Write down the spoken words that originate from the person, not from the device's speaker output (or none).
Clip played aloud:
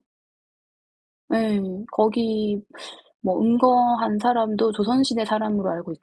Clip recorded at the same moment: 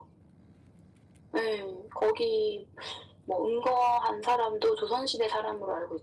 none